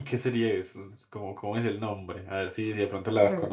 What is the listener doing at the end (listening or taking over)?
taking over